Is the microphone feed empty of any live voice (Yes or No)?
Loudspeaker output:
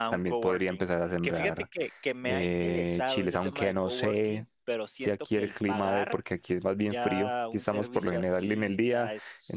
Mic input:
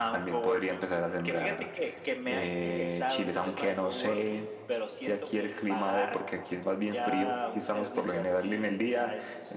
Yes